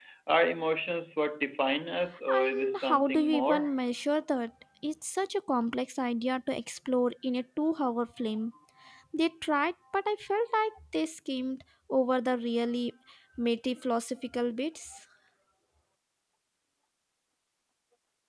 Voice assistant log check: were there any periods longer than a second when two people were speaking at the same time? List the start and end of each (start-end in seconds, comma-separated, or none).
2.3-3.7